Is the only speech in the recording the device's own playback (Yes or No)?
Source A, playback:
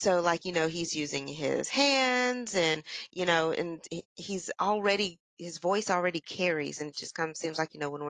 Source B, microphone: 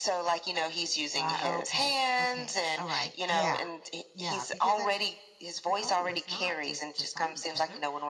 No